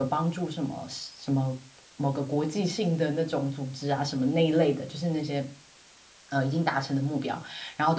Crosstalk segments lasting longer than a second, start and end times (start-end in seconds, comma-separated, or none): none